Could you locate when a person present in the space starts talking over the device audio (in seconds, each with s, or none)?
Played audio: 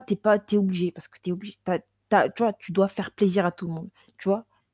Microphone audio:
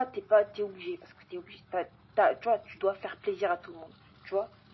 none